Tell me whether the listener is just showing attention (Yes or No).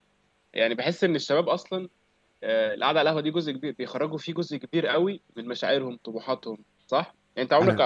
Yes